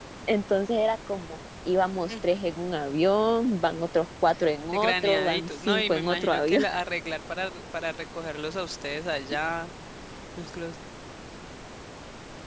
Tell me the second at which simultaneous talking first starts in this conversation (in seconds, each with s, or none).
4.7 s